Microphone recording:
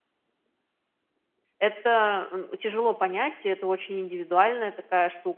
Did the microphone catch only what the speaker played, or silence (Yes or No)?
No